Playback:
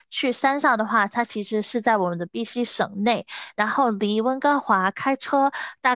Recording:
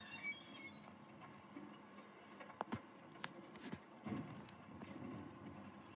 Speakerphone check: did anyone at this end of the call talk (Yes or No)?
No